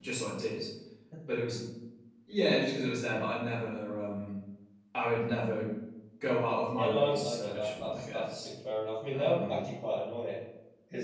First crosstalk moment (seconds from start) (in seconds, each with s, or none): 6.8 s